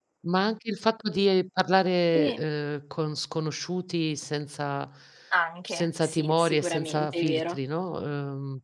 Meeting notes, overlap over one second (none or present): present